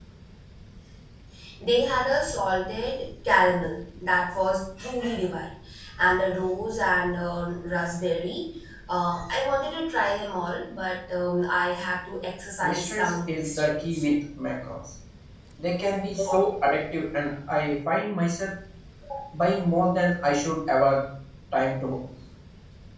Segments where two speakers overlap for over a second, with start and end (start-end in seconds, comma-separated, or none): 12.6-14.2